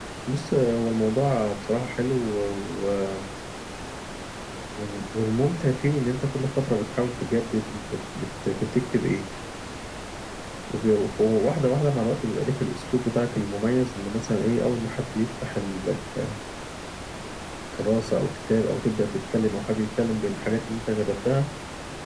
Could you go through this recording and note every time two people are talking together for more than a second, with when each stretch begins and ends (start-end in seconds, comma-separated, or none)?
none